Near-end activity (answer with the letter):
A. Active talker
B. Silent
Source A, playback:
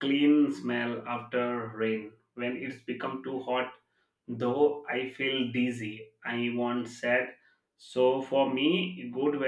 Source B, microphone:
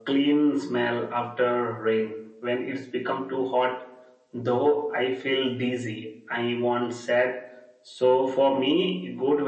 B